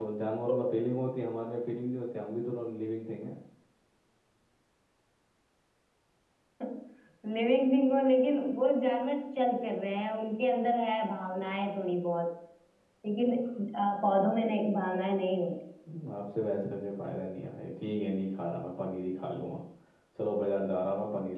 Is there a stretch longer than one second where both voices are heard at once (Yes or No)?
No